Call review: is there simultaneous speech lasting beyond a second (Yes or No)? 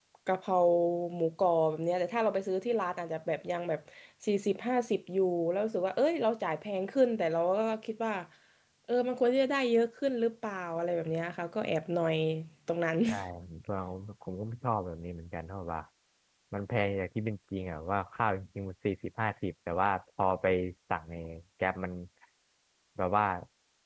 No